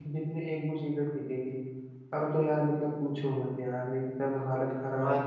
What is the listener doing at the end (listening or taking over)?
taking over